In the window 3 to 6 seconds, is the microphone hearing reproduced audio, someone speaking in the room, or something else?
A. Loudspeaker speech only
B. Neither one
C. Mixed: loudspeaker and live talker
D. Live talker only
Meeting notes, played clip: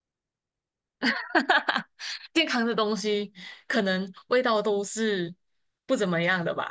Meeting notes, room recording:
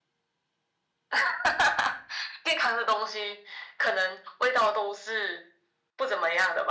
A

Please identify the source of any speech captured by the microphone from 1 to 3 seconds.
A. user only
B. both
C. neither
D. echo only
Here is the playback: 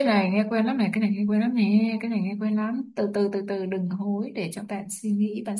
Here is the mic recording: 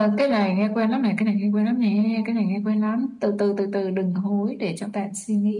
D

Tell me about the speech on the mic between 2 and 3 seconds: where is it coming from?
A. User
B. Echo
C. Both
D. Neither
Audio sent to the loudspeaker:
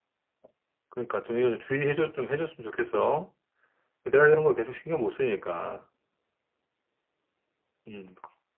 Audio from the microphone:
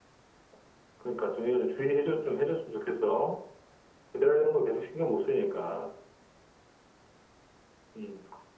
B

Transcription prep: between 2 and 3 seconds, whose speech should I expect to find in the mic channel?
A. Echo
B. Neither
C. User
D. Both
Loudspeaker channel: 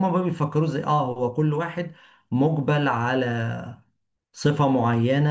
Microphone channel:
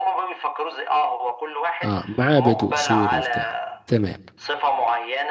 D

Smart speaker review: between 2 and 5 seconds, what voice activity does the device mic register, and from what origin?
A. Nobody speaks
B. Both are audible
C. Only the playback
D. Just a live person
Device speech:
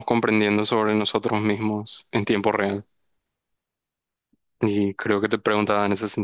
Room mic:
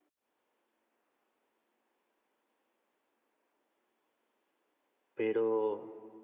A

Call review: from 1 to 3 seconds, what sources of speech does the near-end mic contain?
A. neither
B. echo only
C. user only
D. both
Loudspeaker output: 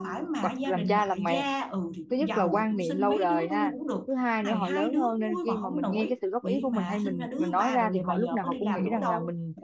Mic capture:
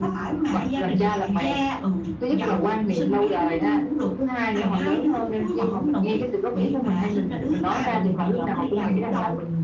B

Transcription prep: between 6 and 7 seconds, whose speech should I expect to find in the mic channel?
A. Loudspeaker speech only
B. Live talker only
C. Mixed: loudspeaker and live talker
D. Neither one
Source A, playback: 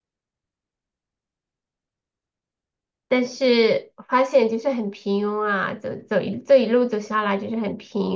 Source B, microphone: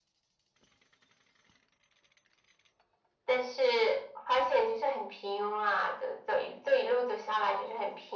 A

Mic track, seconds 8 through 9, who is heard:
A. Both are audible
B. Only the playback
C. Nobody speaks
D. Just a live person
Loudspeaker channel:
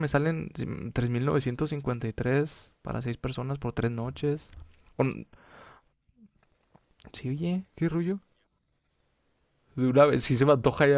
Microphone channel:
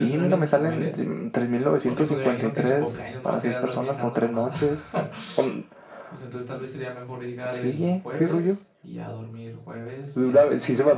A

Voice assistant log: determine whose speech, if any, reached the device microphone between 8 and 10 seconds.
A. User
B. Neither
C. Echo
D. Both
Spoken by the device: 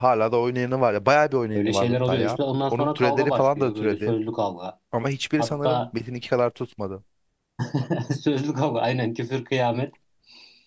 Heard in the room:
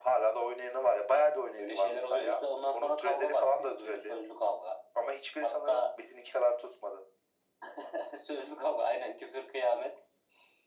C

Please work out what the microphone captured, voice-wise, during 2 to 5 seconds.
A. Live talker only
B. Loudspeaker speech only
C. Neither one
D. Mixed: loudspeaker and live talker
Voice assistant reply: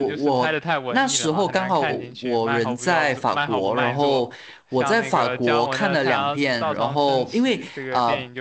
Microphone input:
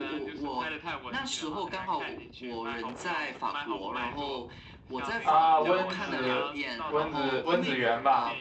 B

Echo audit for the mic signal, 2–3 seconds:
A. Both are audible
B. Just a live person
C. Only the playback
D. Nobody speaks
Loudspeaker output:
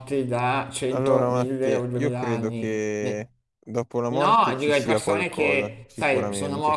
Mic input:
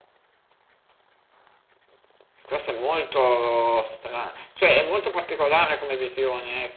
B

